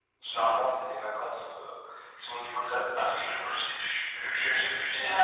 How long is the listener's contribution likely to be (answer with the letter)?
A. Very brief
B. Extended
A